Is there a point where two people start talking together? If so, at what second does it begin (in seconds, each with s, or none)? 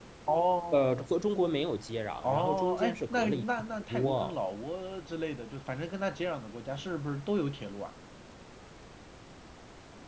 2.2 s